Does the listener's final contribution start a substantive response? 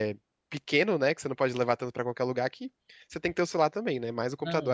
Yes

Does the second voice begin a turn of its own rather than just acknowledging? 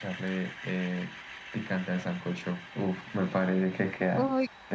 Yes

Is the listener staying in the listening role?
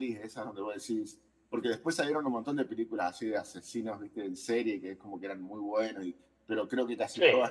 Yes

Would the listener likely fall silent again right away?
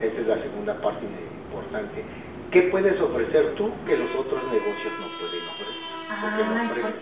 No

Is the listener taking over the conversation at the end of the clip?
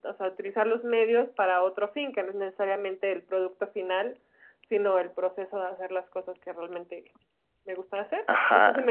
Yes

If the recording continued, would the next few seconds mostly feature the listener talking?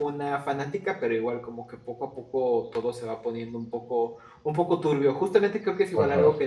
No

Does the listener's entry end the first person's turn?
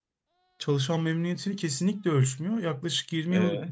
No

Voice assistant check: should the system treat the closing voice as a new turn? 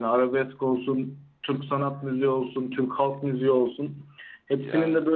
No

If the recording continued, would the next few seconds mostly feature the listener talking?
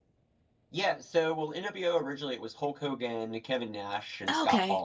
No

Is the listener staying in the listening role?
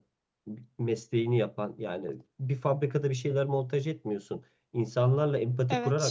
Yes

